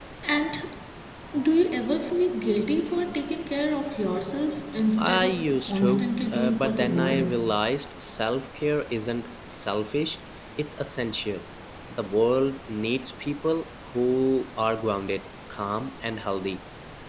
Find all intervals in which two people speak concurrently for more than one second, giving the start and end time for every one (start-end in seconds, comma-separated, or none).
5.0-7.5